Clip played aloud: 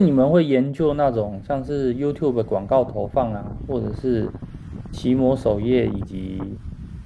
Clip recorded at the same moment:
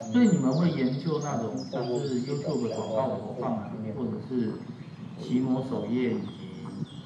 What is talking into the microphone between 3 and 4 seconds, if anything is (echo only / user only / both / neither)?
both